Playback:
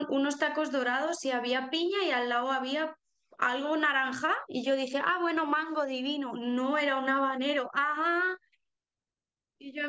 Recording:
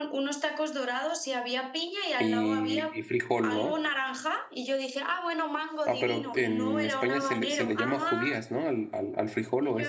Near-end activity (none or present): present